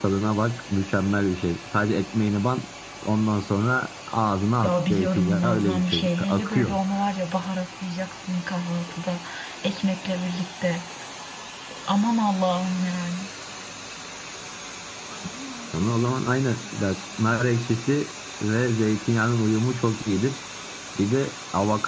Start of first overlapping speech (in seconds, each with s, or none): 4.6 s